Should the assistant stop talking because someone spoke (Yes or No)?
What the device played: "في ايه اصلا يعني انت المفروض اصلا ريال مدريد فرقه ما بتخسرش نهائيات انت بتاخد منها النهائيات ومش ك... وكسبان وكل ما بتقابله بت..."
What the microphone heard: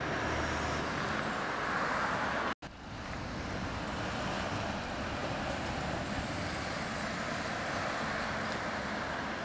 No